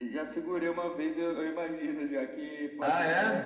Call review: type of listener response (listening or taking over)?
listening